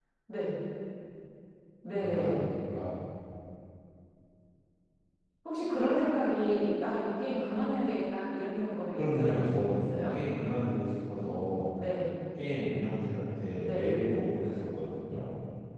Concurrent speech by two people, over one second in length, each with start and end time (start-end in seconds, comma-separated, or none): 8.9-10.1